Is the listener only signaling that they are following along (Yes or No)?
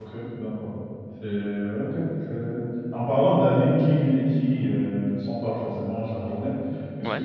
Yes